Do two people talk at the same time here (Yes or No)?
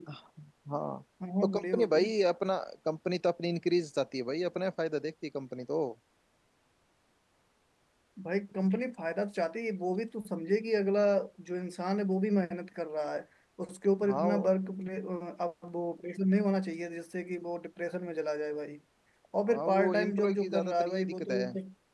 Yes